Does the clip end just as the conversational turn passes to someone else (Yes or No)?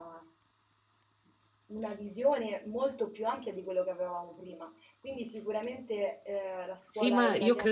Yes